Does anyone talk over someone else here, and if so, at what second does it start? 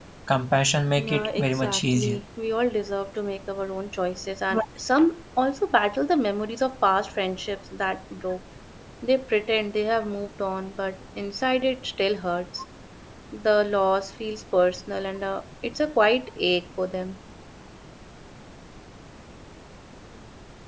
1.0 s

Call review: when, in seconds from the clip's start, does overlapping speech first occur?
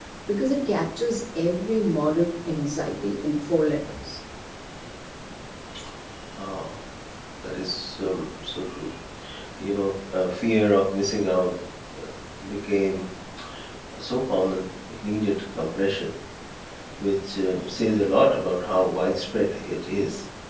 none

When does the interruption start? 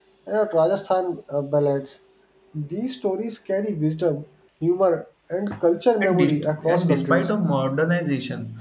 6.0 s

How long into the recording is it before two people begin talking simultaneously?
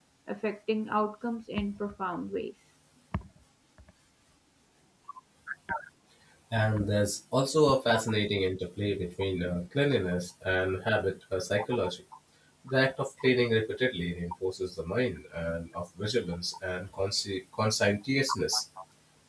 none

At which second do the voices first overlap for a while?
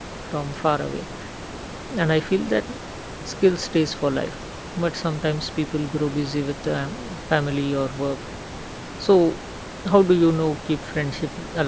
none

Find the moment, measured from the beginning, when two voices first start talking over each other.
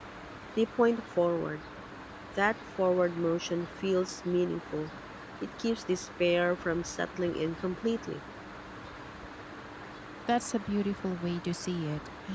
none

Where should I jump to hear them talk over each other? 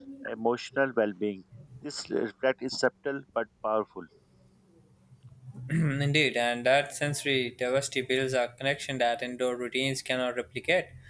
none

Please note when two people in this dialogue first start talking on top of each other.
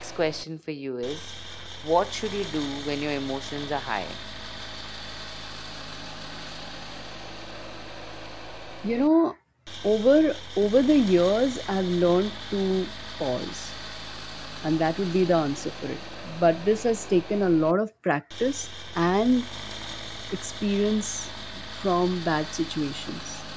none

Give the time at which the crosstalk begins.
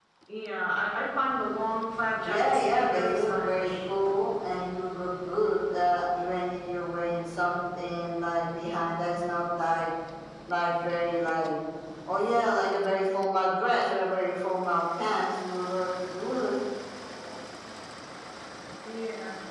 2.2 s

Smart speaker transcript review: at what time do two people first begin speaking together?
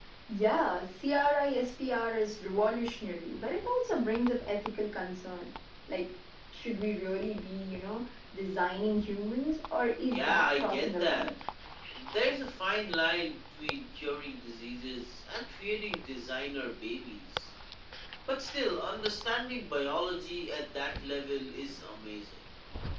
10.1 s

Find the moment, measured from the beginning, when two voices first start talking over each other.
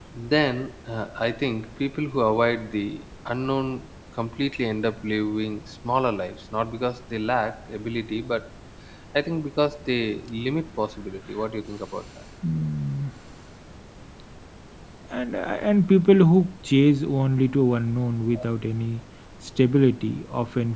none

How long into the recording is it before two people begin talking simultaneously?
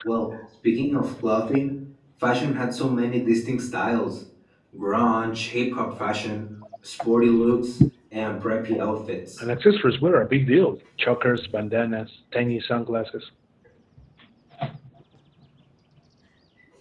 none

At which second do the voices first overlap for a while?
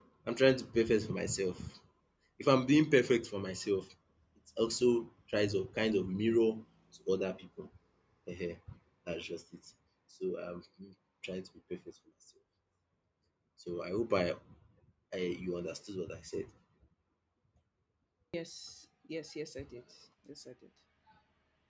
none

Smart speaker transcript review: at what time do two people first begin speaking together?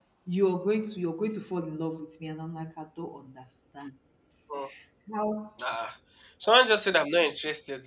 none

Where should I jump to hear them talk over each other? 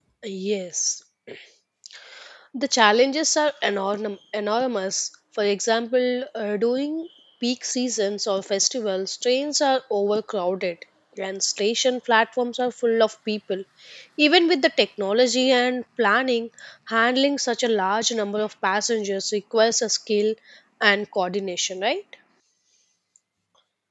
none

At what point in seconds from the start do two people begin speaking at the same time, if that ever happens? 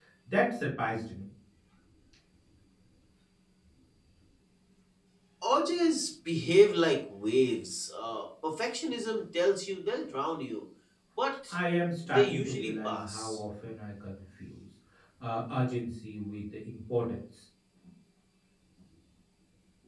12.1 s

